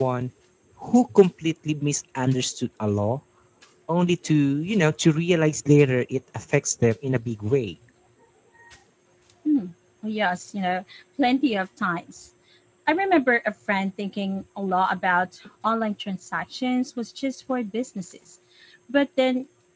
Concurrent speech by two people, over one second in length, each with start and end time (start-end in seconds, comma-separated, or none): none